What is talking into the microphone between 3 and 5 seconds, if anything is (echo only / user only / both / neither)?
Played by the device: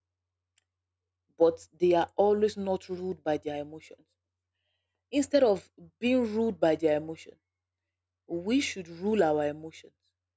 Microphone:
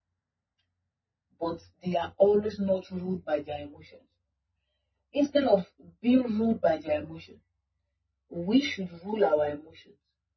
echo only